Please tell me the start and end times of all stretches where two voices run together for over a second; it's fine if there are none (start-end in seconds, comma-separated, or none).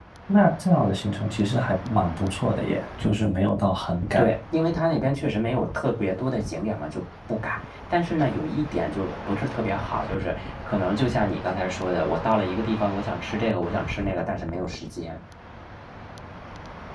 none